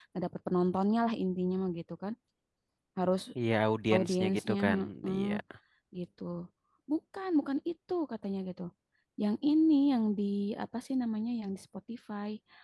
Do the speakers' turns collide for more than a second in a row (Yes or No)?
Yes